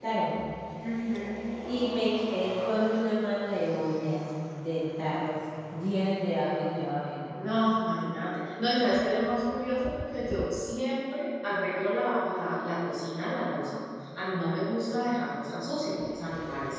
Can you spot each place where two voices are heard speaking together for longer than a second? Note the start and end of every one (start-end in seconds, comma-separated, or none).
none